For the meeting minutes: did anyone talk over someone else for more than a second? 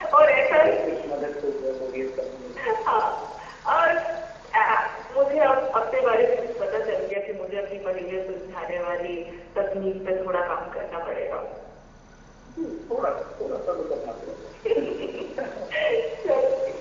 No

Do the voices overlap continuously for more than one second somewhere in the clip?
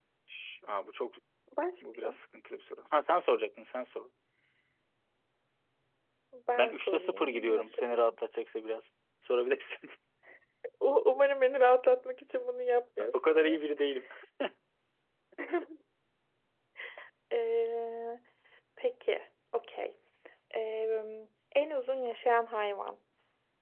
Yes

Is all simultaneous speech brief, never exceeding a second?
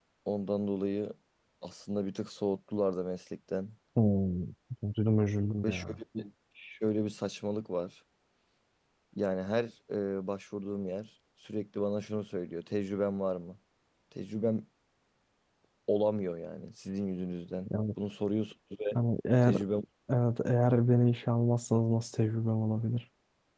Yes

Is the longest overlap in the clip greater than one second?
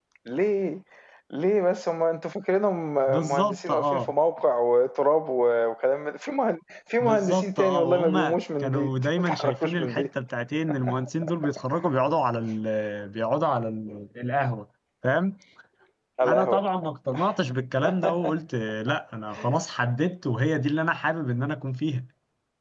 Yes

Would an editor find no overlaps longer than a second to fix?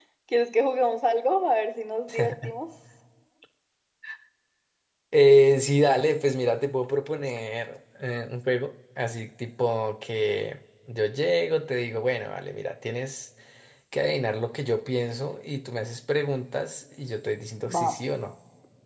Yes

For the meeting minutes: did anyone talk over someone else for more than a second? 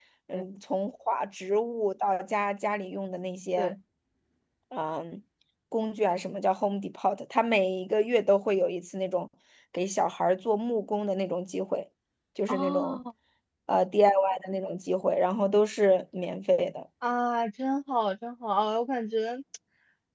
No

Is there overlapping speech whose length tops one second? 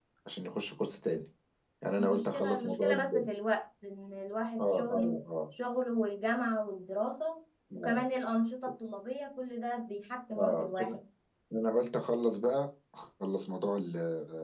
Yes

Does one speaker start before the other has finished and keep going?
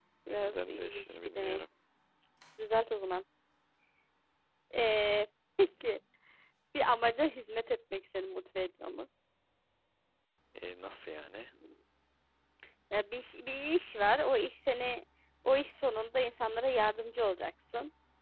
Yes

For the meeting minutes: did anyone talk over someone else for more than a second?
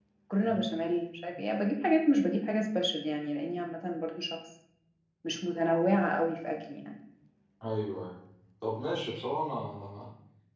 No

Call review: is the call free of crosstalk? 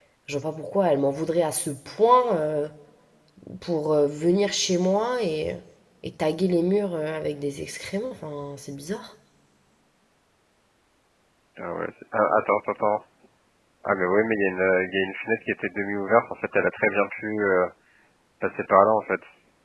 Yes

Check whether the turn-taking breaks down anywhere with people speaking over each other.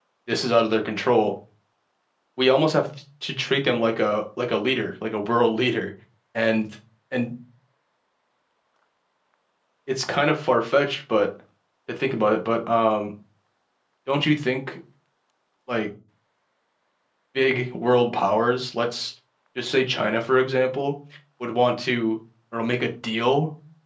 No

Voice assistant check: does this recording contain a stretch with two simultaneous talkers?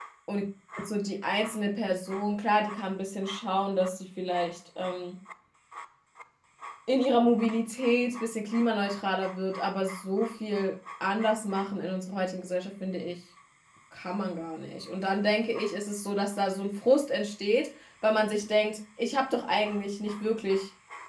No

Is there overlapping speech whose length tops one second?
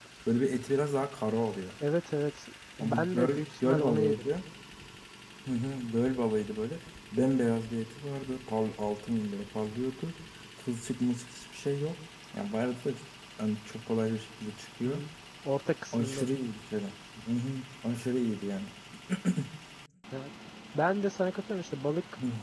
Yes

